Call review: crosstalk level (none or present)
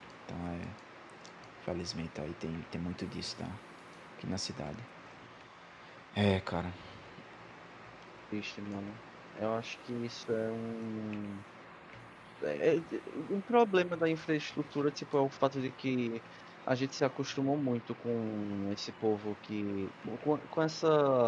none